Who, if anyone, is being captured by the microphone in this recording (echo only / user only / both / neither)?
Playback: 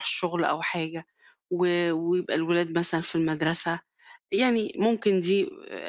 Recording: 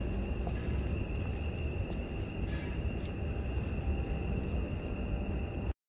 neither